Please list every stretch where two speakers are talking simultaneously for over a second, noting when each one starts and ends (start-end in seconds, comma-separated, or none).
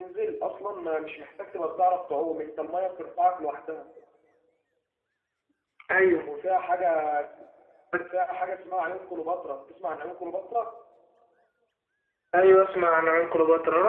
none